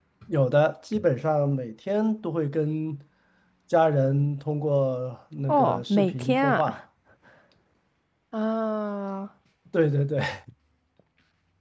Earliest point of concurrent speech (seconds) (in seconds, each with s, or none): 5.5 s